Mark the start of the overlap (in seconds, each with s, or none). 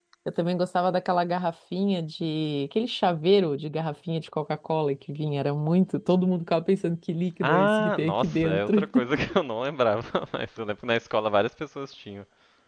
7.4 s